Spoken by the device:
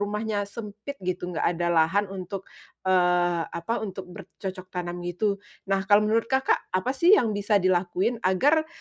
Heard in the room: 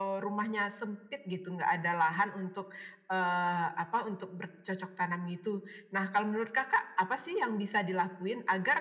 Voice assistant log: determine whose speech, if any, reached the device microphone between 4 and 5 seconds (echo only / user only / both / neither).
echo only